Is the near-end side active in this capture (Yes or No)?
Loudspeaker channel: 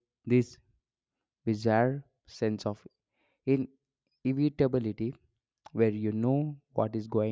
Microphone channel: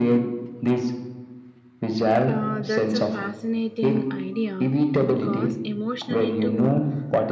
Yes